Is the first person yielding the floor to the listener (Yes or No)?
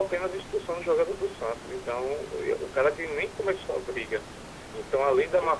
No